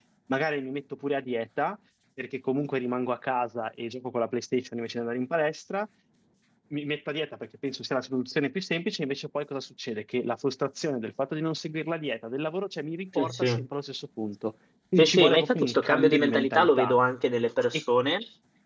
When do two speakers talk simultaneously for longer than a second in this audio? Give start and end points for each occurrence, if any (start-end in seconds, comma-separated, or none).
15.0-16.9